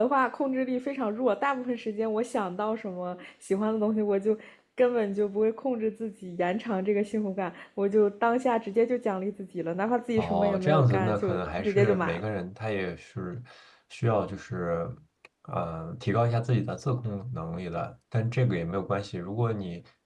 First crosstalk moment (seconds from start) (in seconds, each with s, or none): 10.2 s